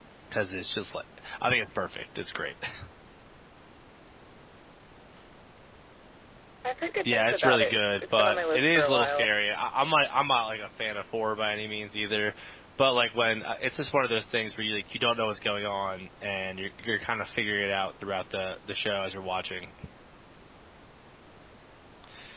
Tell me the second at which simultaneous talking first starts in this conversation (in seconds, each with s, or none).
7.0 s